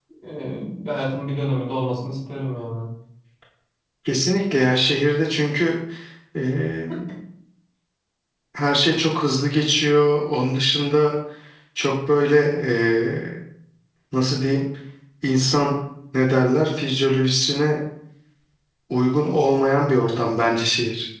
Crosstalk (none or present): none